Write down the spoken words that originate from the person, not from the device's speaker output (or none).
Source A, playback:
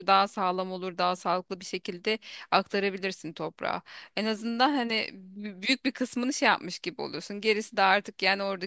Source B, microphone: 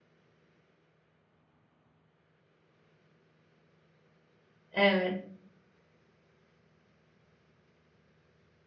Evet.